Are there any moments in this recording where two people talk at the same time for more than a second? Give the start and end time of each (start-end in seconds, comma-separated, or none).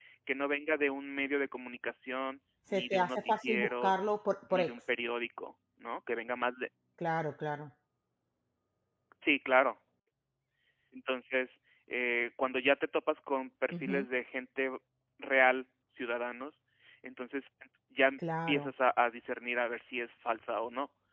2.7-3.9